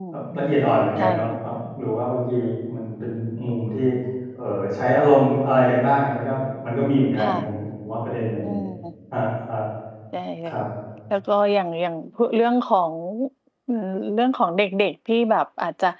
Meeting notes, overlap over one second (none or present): none